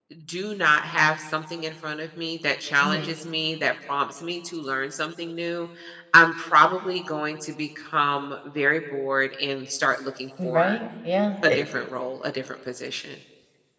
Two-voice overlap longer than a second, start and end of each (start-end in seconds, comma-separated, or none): none